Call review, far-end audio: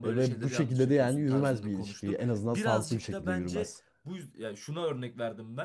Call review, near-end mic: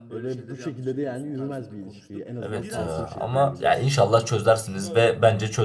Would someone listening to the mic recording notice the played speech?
Yes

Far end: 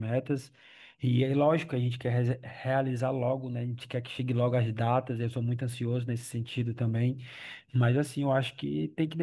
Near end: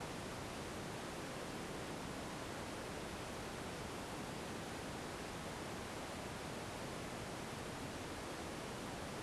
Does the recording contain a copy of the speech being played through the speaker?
No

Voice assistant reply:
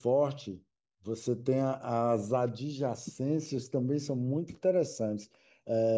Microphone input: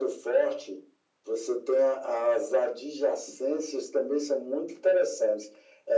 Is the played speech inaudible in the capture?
No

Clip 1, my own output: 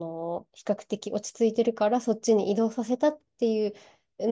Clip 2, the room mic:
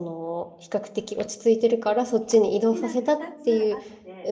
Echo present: Yes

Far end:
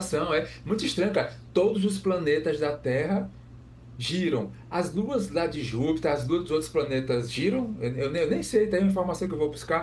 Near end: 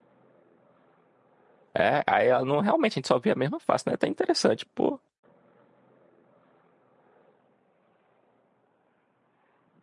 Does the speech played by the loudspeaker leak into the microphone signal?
No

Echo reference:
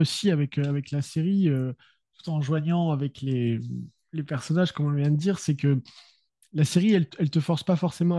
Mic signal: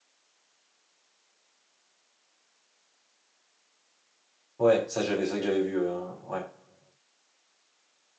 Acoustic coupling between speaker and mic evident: No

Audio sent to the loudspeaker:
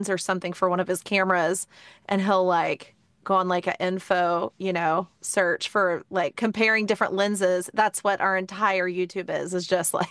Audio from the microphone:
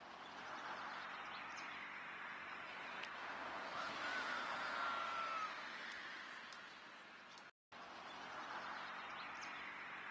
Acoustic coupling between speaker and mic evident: No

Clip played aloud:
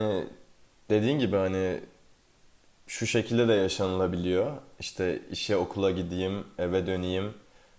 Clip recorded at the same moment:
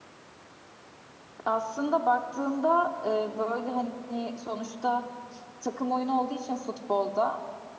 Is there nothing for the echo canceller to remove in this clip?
Yes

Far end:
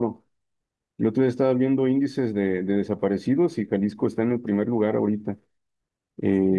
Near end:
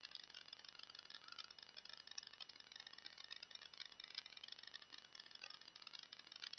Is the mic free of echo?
Yes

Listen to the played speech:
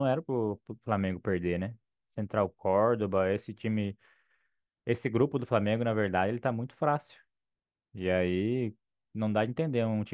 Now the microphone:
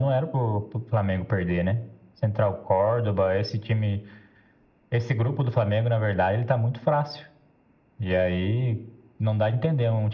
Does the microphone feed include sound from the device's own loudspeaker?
Yes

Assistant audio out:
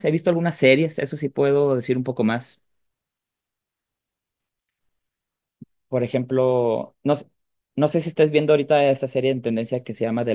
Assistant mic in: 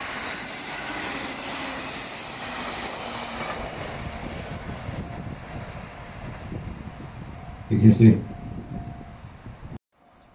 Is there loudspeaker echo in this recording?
No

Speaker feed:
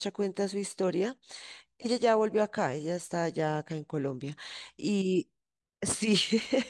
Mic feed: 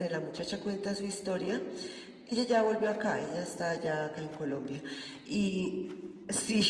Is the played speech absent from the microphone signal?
No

